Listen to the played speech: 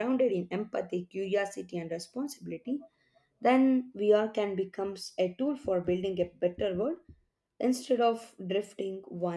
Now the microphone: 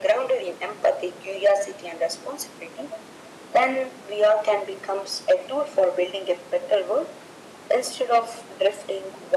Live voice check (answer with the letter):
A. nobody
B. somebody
A